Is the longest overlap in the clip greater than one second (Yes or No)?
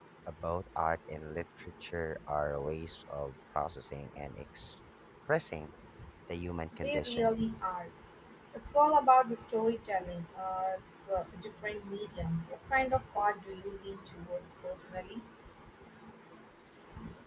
No